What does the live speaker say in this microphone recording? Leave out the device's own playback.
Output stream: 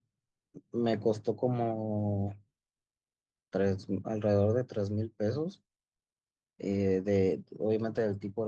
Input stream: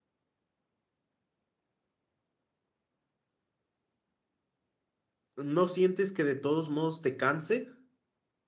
¿no sientes que de todos modos te canse?

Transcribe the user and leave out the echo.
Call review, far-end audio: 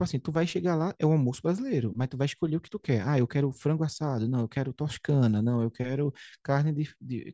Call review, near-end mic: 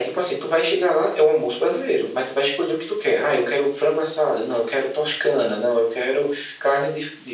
none

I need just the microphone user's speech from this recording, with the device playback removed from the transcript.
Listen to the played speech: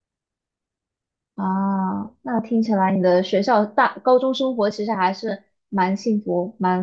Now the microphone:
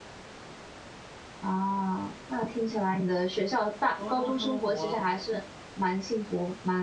高中生活，

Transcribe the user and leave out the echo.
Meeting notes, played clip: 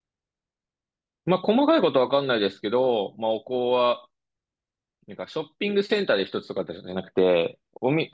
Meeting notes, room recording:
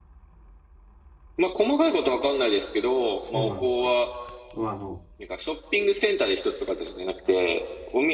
そうなんですか。まあ、あの、

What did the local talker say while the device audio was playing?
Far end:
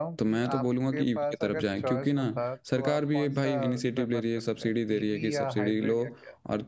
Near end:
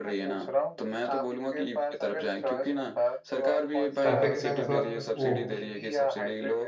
ट्रैफिक सेंस और वो

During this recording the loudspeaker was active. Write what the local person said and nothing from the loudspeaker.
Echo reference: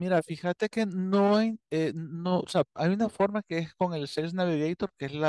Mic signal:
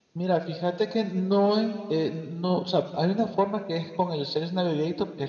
none

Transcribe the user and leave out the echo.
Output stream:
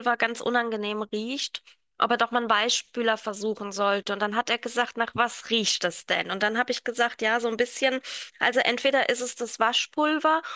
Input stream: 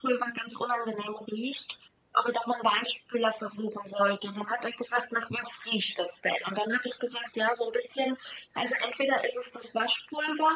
none

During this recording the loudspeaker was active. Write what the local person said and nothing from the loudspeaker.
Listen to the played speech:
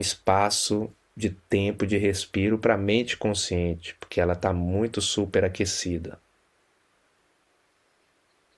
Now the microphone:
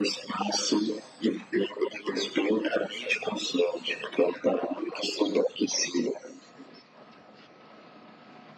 none

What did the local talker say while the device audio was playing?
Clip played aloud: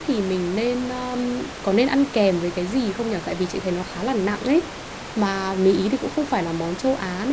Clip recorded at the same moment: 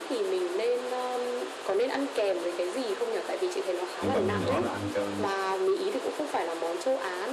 kiểu băm nhỏ nhỏ ra ăn cho

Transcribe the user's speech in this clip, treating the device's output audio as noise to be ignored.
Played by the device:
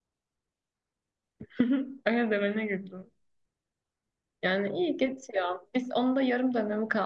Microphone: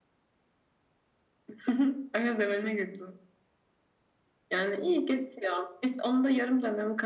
none

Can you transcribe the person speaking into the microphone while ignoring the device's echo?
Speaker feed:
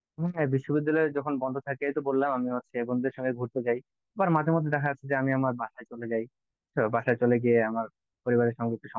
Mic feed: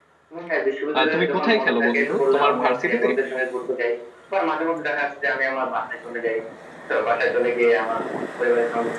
আহ, তুমি কোথায় খেলো বন্ধু তোমার ভার্সিটিতে

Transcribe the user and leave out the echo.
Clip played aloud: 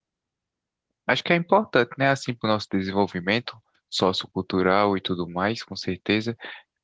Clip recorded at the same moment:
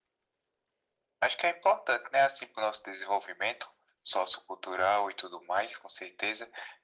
none

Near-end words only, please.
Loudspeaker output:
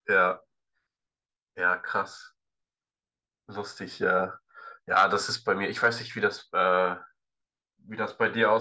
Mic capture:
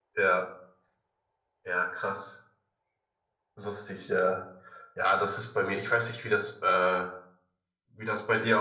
none

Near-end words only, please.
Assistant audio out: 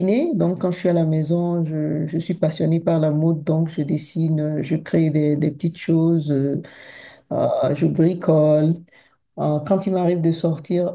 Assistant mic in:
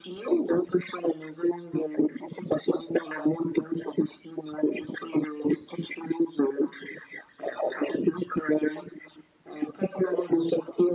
none

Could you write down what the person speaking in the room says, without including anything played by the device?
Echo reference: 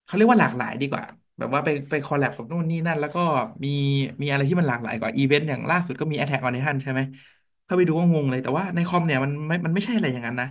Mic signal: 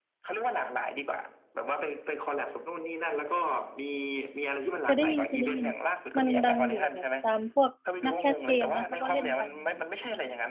เคยได้ยินเคยได้ยินมันดังอยู่แบบตามพวกนักแคสเกมเนี้ยเขาก็เล่นกันอย่างเงี้ย

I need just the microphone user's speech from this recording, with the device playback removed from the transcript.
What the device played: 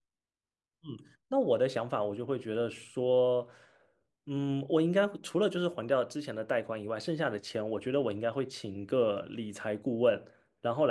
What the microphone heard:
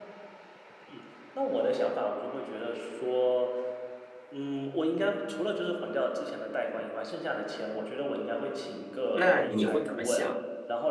那你会怎么想？

